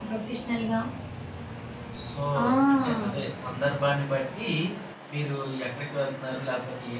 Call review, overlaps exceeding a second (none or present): none